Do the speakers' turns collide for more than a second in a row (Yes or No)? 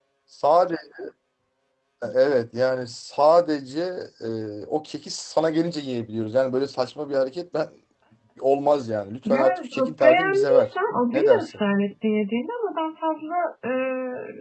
Yes